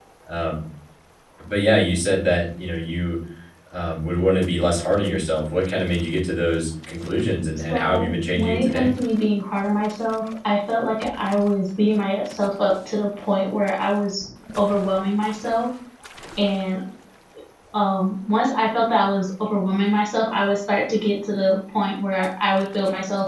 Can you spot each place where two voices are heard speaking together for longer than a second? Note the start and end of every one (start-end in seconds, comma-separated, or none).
7.7-8.9